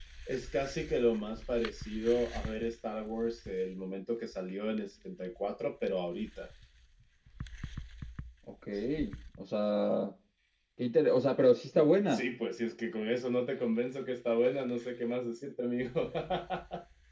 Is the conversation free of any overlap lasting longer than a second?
Yes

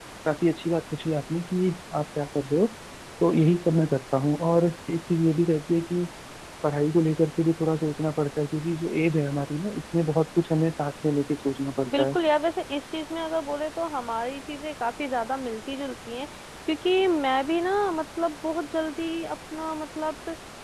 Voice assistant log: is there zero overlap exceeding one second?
Yes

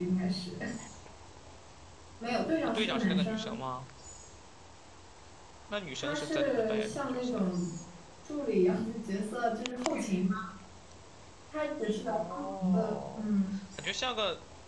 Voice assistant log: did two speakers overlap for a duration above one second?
Yes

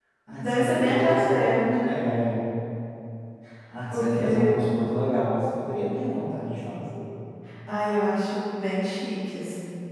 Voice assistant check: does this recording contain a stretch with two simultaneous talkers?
Yes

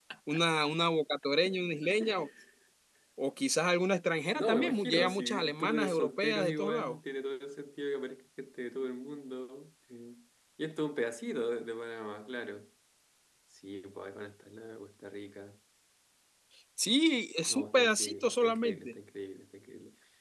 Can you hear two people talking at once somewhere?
Yes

